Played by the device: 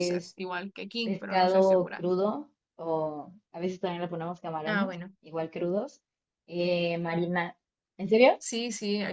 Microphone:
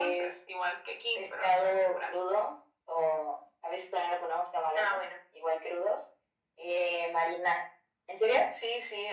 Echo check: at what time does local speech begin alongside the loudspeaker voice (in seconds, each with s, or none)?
none